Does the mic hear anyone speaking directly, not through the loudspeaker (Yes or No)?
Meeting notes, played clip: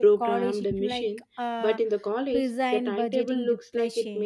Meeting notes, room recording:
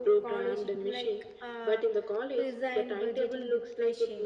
No